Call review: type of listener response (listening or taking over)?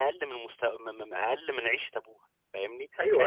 taking over